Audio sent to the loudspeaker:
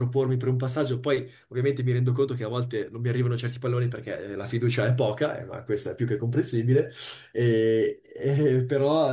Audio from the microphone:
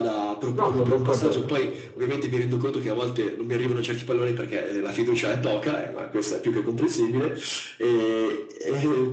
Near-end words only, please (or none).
No, sono d'accordo.